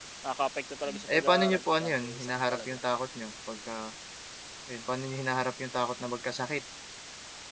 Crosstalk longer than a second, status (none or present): present